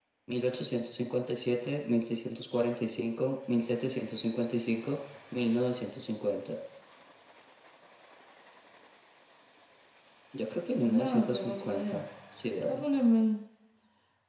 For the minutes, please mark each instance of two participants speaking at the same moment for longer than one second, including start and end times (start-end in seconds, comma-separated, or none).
10.8-12.0